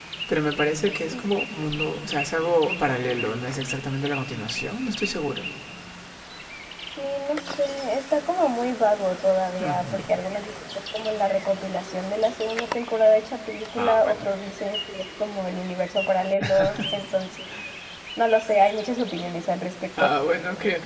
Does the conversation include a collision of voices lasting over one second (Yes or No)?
No